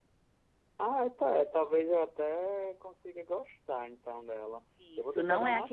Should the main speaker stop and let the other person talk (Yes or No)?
Yes